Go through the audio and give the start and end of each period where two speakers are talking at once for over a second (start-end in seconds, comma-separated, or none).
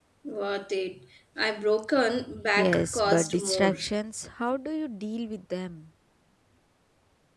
2.6-3.8